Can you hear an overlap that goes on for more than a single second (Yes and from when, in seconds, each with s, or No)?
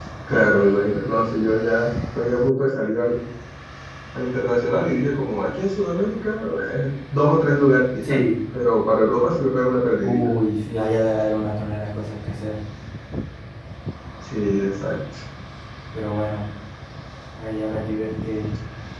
No